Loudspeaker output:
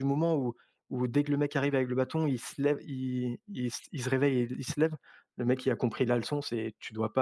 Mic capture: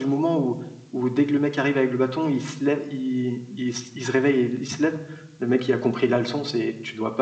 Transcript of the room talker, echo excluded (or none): none